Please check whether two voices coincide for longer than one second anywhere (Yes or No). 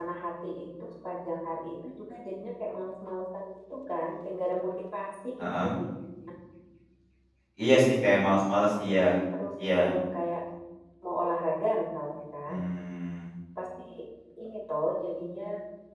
No